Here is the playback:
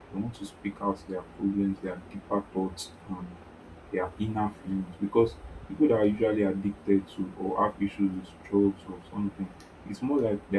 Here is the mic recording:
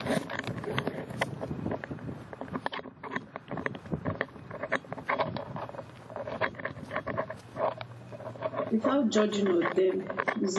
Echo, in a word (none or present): none